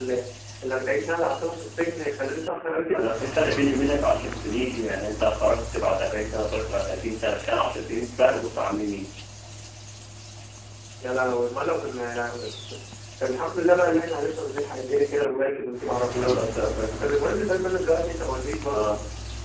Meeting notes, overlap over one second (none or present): none